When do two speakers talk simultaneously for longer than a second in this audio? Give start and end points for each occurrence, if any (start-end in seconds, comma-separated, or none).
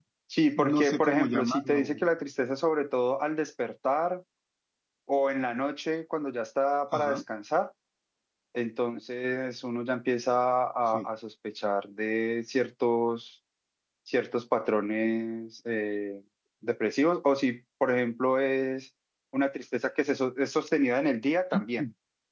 0.6-1.9